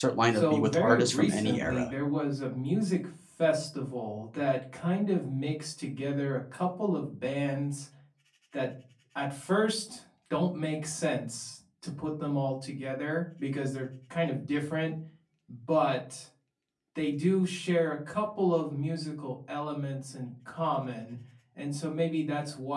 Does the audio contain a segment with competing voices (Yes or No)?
Yes